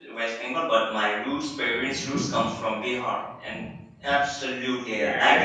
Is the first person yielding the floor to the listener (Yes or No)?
Yes